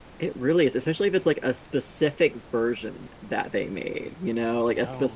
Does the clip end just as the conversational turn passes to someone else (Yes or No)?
No